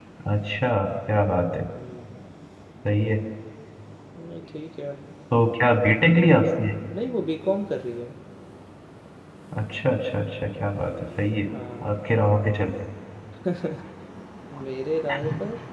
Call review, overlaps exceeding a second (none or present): none